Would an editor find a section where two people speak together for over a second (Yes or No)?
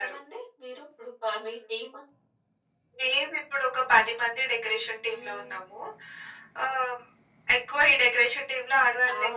No